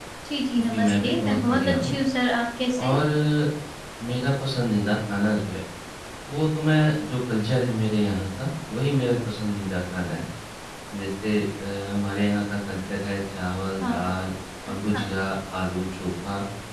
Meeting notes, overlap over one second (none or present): present